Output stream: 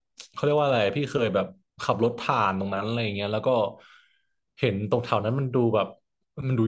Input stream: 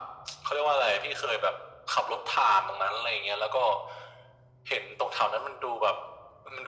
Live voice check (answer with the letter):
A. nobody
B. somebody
A